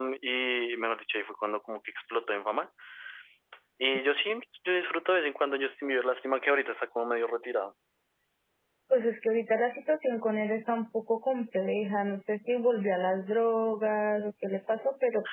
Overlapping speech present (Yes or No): No